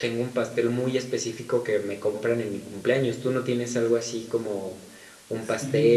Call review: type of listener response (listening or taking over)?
taking over